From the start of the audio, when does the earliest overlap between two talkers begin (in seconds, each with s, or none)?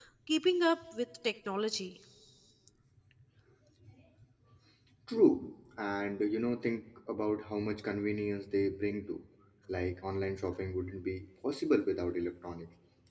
none